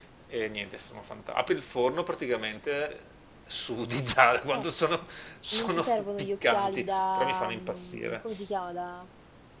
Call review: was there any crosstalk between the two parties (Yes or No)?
Yes